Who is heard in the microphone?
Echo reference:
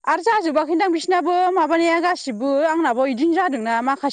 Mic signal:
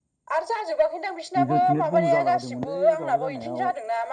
both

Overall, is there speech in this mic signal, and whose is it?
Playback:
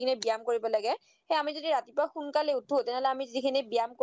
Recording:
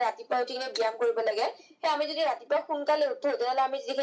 echo only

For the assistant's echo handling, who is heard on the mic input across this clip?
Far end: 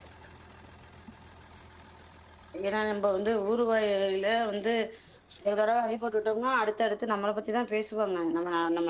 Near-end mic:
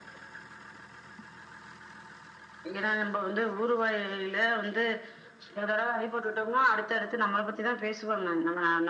echo only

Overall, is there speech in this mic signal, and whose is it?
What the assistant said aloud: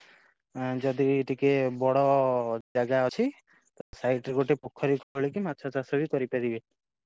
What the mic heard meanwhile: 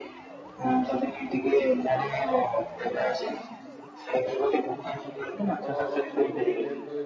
both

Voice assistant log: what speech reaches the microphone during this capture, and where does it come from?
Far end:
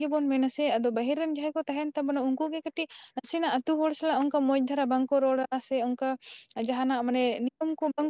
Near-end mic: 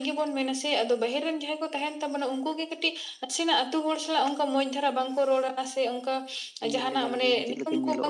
both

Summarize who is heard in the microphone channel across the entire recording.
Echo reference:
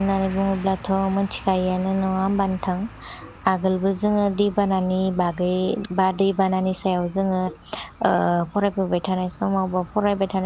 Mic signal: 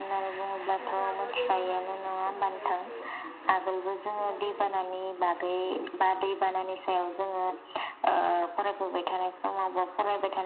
both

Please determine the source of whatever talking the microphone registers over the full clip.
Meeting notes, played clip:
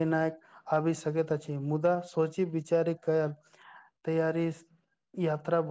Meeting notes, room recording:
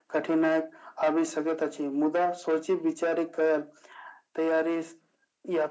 echo only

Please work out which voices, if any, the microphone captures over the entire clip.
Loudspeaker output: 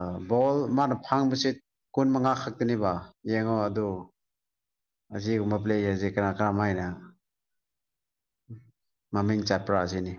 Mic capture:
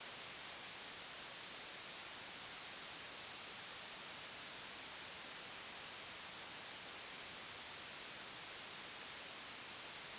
neither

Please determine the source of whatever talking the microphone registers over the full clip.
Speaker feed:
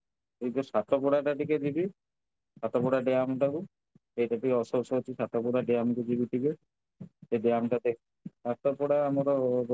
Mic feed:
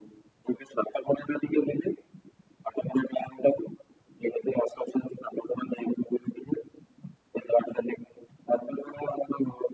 echo only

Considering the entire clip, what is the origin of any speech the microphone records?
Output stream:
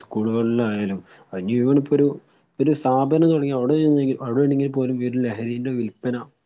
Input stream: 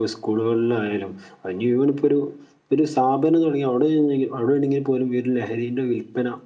echo only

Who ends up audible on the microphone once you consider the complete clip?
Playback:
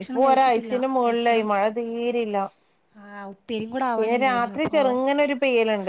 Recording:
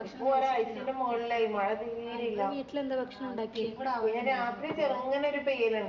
both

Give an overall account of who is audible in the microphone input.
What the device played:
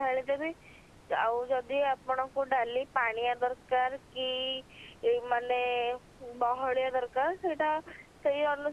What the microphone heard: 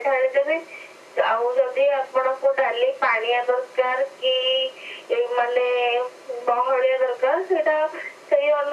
echo only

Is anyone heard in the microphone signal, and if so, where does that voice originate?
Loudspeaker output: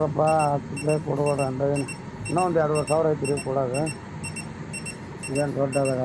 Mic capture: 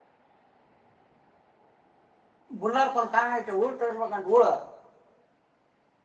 user only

